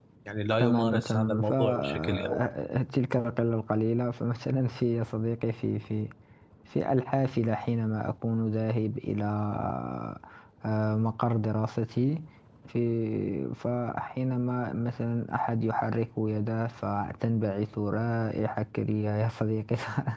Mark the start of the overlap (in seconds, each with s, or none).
0.6 s